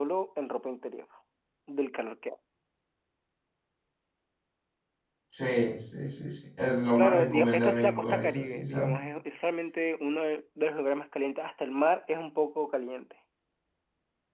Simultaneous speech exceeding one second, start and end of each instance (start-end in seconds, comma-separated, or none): 7.0-8.9